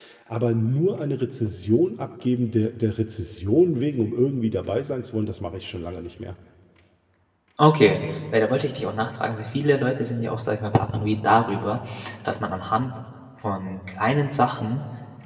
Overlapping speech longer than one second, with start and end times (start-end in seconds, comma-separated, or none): none